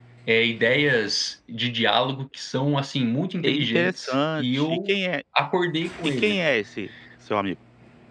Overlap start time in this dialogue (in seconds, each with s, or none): 3.4 s